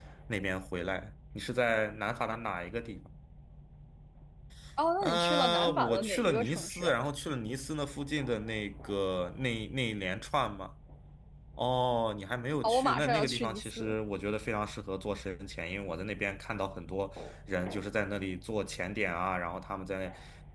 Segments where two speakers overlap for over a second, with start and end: 5.0-7.0, 12.6-14.0

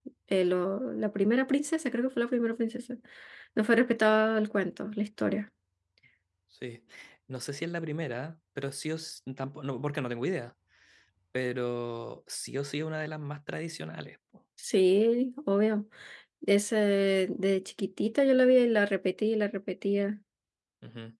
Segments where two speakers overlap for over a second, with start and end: none

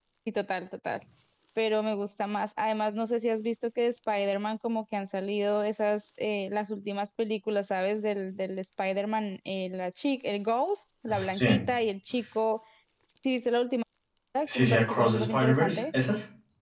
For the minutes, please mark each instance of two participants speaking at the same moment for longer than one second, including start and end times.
14.5-15.8

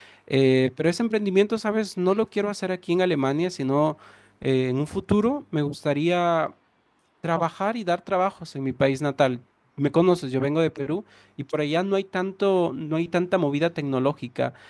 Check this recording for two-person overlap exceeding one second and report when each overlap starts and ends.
none

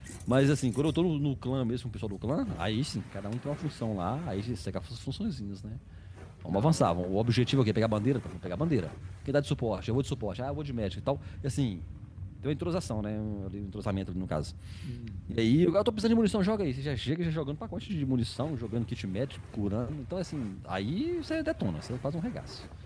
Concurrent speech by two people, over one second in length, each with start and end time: none

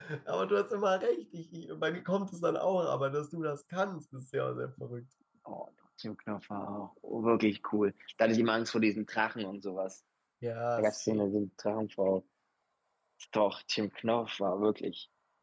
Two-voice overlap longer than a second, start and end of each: none

